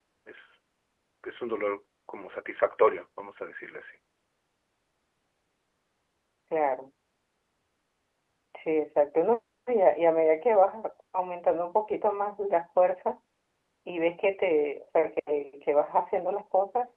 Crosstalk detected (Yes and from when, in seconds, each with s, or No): No